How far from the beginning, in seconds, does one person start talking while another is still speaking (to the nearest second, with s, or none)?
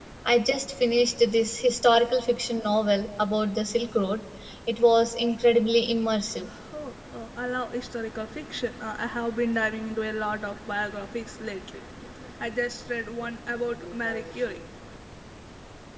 none